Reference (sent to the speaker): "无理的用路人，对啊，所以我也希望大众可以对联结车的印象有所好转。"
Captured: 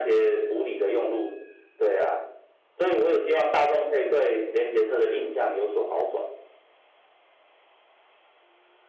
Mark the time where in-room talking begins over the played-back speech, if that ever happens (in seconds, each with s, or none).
none